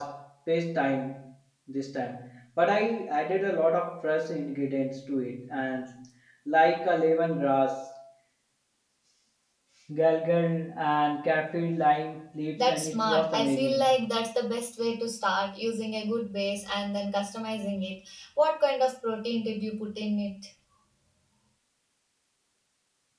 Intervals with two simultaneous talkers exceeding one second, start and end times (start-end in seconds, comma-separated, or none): 12.6-14.1